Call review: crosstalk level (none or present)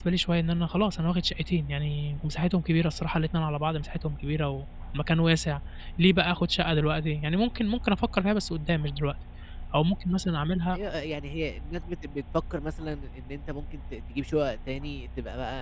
none